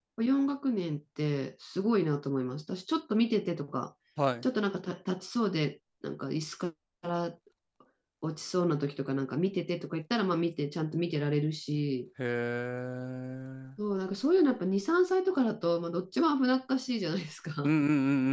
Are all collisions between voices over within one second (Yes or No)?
Yes